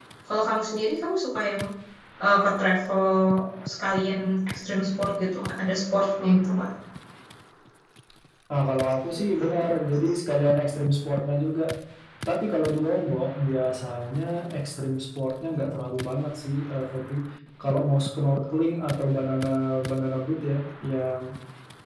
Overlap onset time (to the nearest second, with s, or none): none